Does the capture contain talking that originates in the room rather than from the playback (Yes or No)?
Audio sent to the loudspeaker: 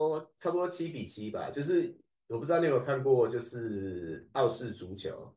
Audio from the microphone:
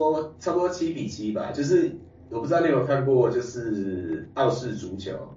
No